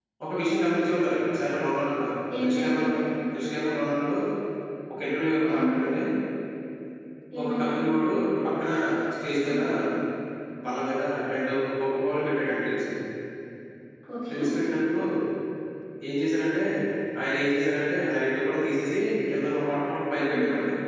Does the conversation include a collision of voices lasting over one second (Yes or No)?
No